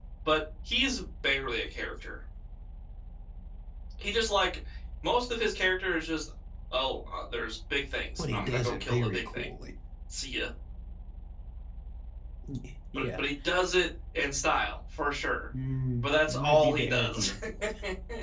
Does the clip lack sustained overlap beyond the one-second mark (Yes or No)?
No